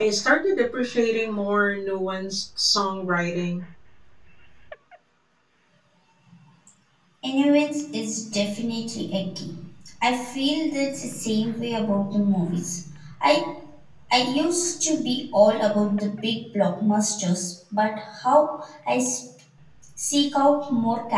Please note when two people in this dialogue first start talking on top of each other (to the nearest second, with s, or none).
none